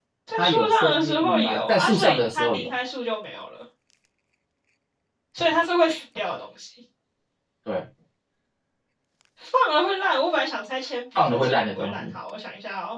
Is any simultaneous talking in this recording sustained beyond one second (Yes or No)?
Yes